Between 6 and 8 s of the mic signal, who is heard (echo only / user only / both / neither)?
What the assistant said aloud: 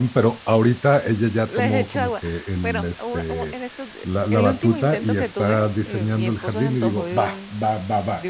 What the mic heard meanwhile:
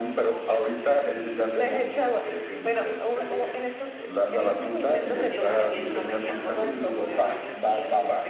both